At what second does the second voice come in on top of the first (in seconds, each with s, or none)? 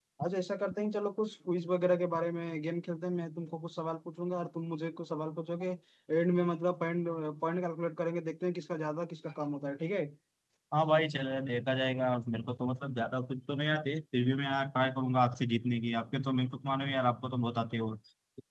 none